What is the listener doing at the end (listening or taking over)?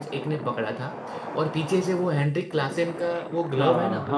taking over